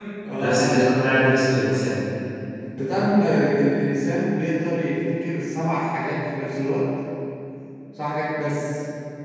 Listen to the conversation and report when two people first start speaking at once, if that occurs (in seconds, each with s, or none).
0.7 s